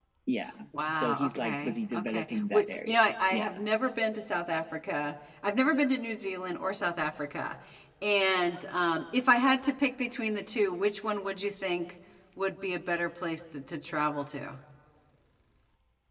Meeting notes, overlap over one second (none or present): present